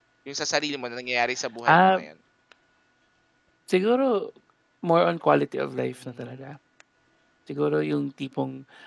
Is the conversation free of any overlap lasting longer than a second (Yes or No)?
Yes